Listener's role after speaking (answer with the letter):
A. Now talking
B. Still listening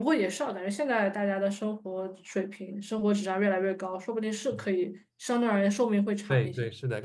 A